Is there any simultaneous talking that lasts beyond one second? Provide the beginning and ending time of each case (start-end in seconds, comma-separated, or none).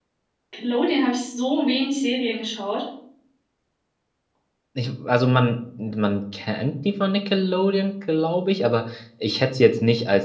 none